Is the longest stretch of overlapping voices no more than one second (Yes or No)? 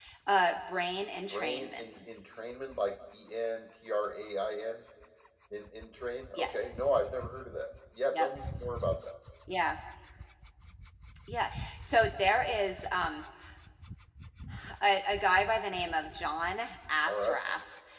Yes